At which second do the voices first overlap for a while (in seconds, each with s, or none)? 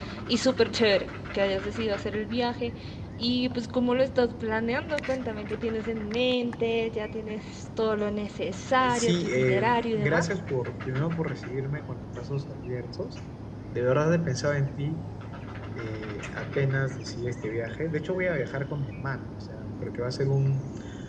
8.8 s